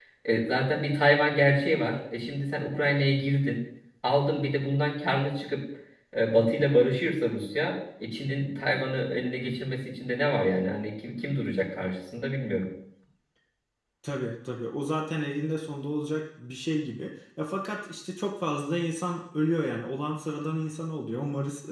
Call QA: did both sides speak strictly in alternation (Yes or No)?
Yes